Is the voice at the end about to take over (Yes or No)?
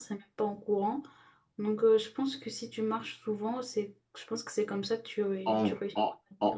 Yes